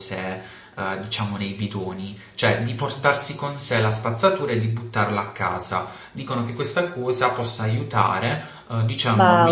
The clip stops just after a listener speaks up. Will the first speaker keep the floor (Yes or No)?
Yes